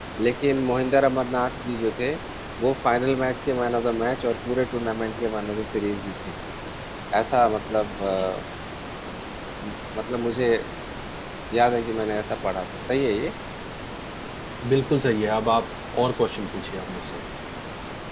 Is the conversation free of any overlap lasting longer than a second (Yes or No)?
Yes